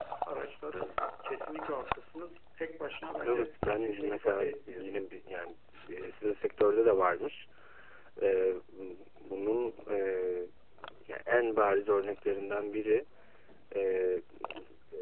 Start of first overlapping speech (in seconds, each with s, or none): 3.2 s